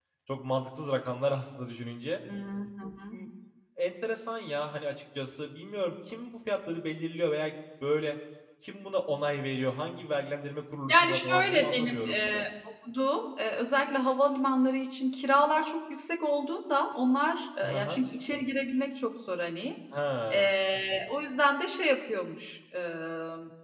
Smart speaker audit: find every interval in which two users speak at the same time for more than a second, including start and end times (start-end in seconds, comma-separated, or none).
10.9-12.2